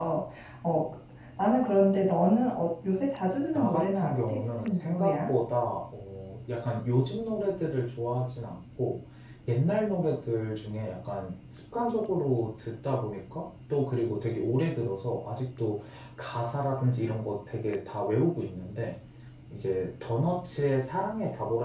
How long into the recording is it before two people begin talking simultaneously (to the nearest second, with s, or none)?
4 s